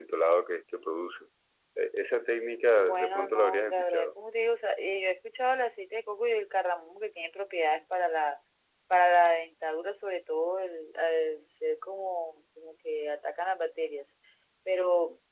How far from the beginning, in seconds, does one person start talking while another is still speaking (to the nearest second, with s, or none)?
3 s